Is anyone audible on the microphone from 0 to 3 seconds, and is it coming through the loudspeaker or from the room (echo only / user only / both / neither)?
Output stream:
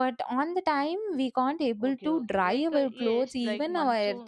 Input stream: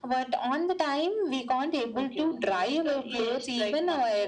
echo only